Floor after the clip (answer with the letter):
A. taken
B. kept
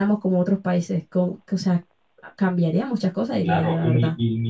A